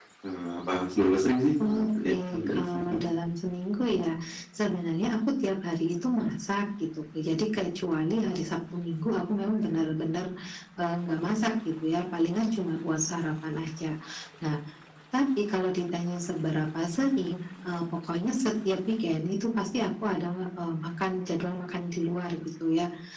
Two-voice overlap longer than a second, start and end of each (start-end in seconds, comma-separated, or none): 1.6-3.0